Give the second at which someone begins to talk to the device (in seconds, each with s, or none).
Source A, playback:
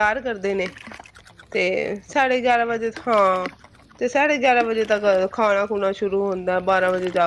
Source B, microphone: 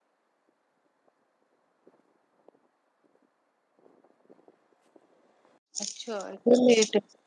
5.8 s